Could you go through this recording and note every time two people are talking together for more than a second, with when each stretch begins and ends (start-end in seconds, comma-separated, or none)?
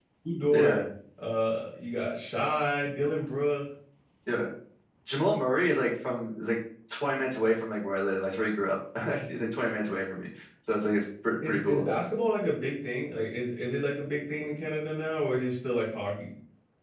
none